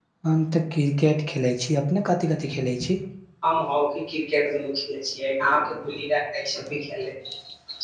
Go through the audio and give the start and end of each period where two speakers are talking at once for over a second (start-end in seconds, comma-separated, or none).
none